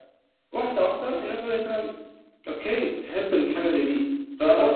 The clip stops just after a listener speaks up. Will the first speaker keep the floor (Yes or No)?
No